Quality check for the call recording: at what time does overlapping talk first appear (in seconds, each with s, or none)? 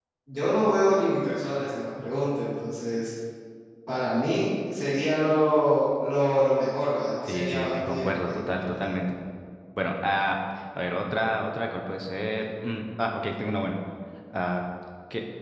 7.2 s